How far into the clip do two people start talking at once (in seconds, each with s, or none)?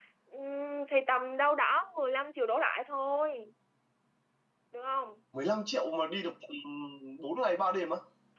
none